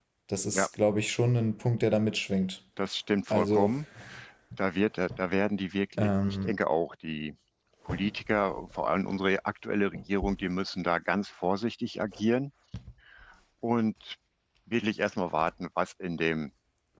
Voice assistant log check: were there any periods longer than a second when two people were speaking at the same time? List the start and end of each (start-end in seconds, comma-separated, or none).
none